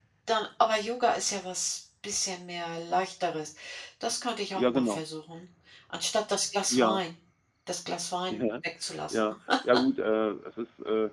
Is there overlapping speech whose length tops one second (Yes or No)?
No